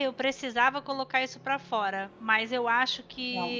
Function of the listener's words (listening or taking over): listening